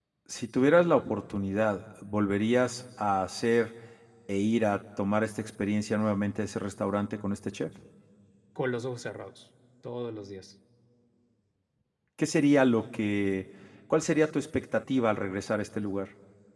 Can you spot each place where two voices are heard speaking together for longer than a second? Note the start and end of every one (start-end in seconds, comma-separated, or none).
none